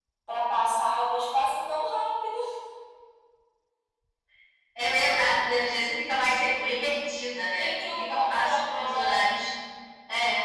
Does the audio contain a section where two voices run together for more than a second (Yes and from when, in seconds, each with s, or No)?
Yes, from 7.6 s